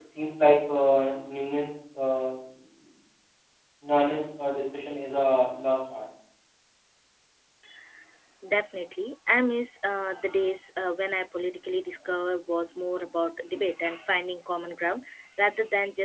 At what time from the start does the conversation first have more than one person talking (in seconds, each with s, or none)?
none